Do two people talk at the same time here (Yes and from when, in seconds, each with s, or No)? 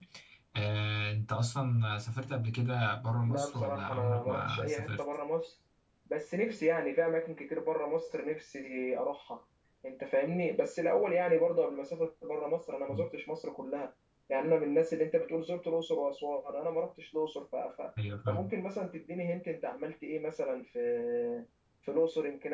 Yes, from 3.2 s